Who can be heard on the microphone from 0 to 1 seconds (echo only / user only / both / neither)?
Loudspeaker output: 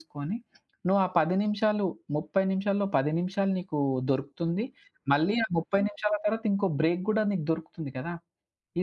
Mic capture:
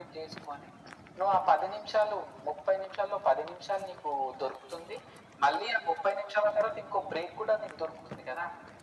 echo only